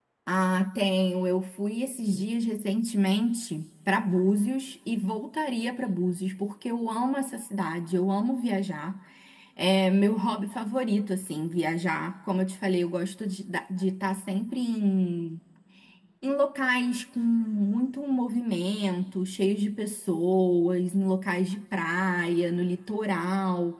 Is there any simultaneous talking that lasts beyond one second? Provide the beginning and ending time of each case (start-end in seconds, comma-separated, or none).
none